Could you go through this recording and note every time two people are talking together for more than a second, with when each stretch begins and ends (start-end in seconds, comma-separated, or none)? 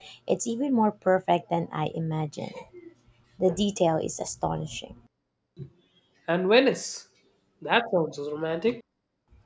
none